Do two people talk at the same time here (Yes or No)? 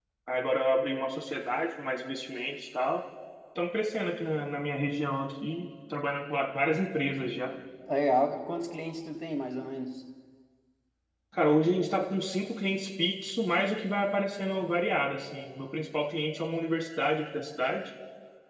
No